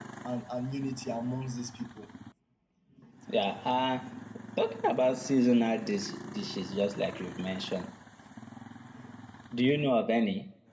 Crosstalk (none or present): none